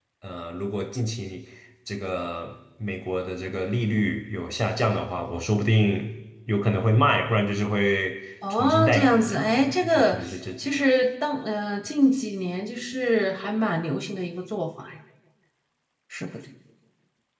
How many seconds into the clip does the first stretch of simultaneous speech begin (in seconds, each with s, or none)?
8.5 s